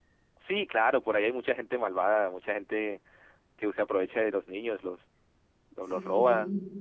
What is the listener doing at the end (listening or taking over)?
taking over